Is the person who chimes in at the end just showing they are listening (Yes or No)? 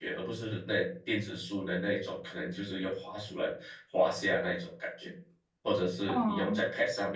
Yes